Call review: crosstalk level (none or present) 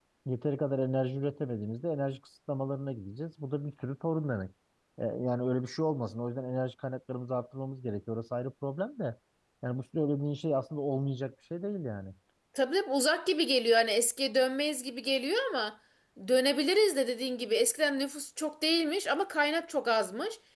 none